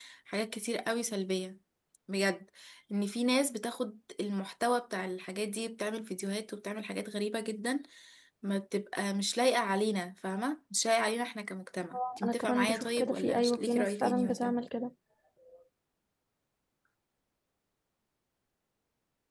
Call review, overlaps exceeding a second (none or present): present